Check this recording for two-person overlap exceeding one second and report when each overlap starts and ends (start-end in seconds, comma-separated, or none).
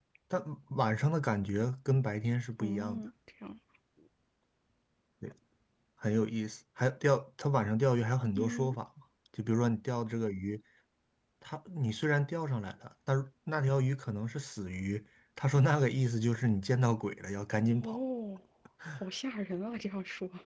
none